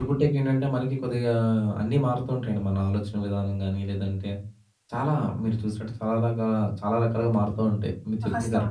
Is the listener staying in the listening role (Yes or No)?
No